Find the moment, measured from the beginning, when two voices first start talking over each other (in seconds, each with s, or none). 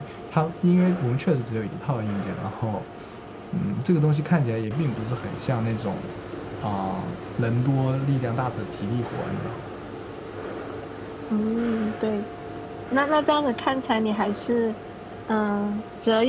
none